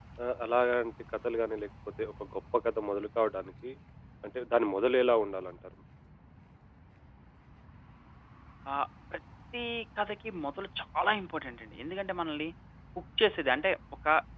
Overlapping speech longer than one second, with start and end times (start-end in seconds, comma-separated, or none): none